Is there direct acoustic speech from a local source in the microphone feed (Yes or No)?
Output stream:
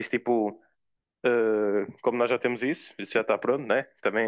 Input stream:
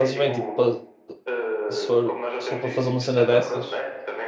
Yes